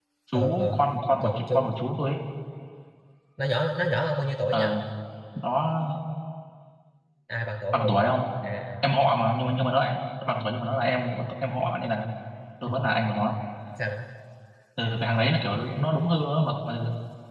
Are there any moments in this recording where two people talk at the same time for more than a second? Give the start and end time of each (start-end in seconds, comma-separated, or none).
none